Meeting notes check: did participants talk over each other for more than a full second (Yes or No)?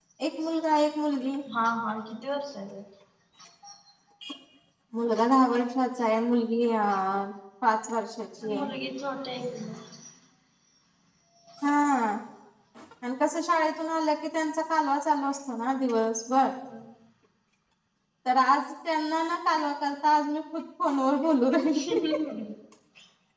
No